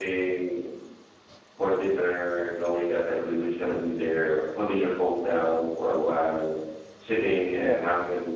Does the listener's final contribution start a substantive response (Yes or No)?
No